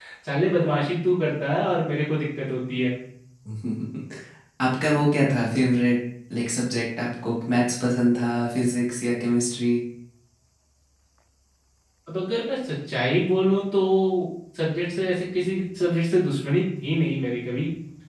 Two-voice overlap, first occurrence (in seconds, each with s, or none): none